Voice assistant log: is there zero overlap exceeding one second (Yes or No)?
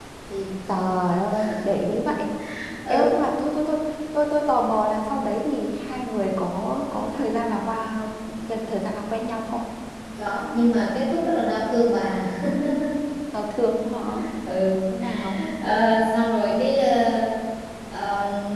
Yes